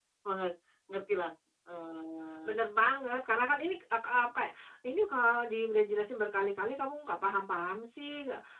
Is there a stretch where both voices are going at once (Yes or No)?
No